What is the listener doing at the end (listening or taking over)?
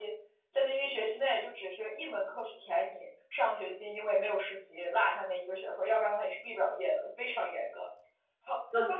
taking over